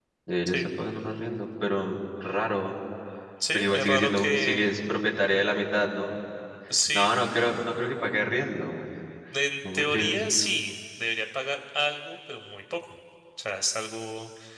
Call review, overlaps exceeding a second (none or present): present